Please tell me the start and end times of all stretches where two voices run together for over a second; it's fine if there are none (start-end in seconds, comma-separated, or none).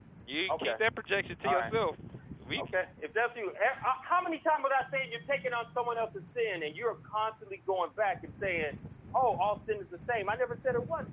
none